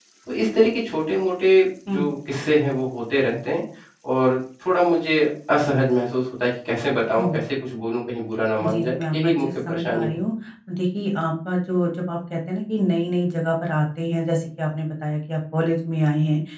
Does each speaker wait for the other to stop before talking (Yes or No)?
No